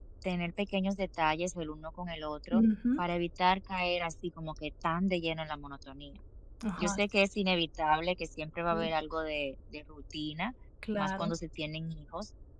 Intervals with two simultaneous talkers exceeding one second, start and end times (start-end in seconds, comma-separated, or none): none